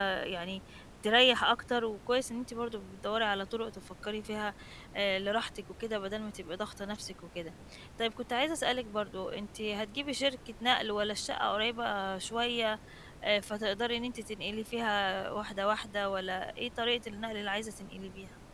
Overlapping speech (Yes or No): No